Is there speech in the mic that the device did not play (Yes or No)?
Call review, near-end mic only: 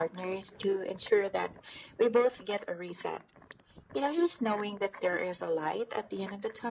No